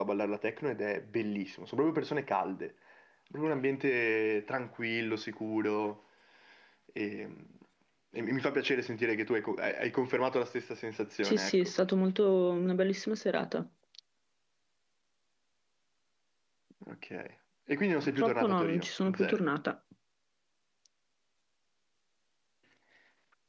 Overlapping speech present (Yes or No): Yes